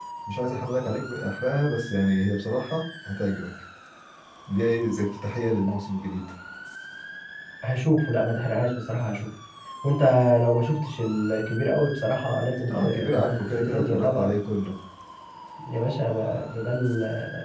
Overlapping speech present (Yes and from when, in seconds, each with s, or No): Yes, from 12.7 s